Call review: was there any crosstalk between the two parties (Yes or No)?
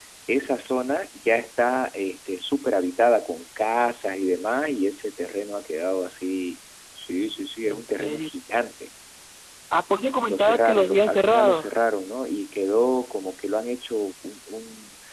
Yes